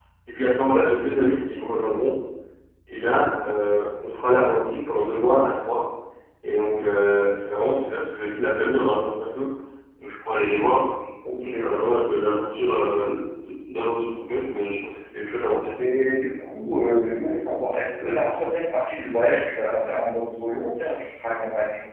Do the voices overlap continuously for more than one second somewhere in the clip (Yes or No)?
No